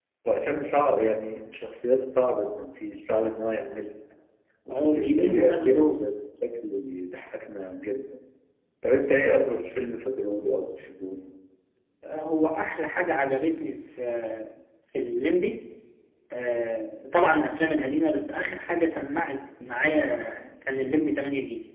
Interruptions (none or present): present